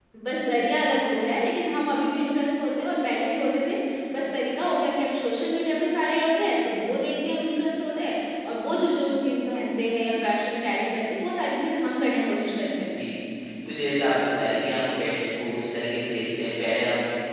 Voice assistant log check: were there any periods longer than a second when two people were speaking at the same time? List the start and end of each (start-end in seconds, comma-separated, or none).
none